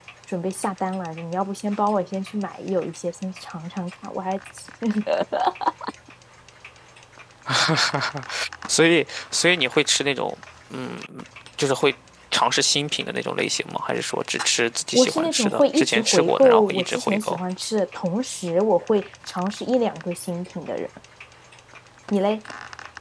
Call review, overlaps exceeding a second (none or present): present